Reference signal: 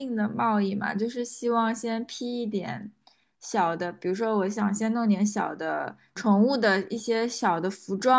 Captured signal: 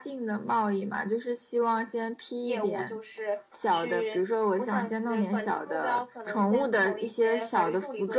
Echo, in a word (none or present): present